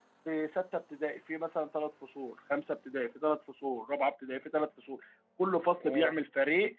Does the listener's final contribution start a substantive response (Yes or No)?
No